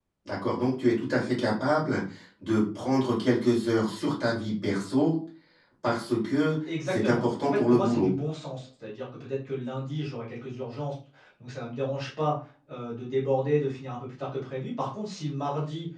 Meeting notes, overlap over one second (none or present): present